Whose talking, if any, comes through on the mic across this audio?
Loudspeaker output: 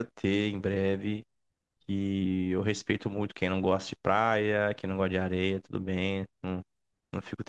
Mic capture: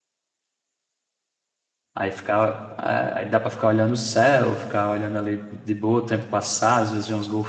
user only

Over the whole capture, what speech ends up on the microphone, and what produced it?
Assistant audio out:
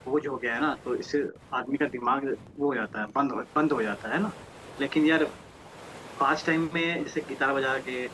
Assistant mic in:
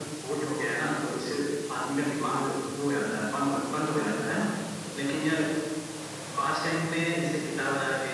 echo only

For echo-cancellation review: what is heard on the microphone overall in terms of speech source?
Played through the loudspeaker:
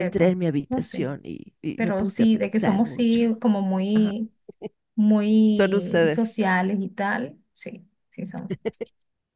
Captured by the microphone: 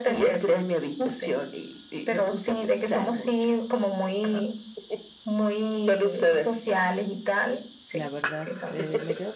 both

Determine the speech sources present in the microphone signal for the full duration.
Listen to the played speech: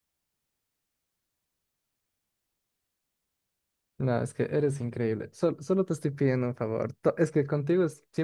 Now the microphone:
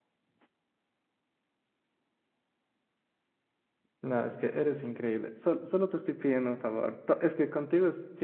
echo only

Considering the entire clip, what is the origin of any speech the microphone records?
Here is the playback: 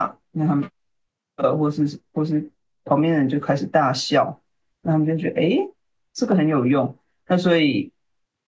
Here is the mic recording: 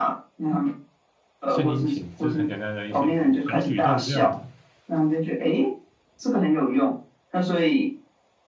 both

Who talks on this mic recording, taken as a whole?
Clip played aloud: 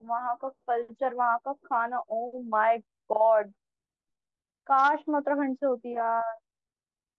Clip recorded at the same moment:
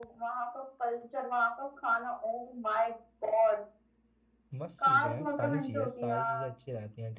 both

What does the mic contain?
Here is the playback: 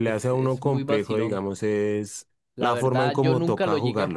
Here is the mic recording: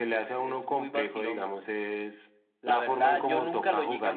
both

